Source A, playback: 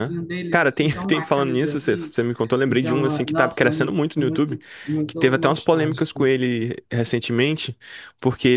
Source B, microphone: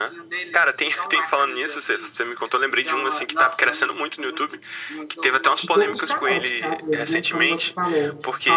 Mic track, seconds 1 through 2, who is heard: echo only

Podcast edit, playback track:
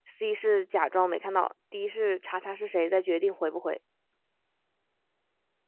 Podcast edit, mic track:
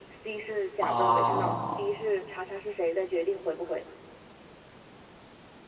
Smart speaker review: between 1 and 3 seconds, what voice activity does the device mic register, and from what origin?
both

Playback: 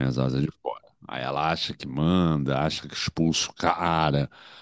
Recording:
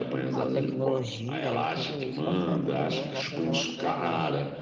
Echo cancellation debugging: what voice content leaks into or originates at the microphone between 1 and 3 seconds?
both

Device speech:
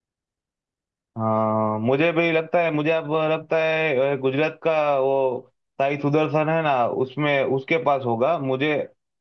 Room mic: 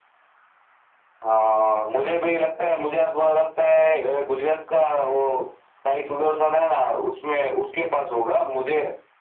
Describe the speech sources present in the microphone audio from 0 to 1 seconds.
neither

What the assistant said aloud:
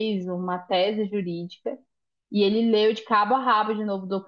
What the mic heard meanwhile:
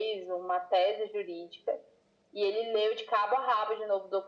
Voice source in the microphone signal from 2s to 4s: echo only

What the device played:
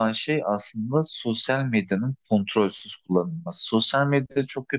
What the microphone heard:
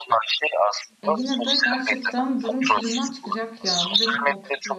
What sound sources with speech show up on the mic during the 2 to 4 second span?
both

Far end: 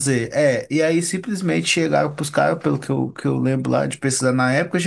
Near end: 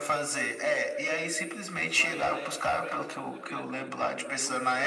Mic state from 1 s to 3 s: both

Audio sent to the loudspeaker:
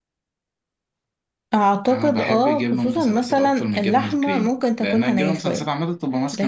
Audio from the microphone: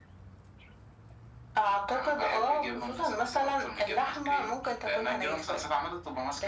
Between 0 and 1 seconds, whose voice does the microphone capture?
neither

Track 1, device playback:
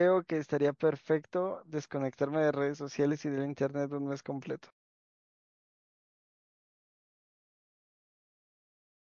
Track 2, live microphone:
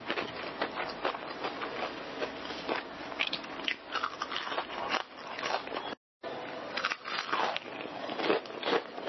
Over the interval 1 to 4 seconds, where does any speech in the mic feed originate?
neither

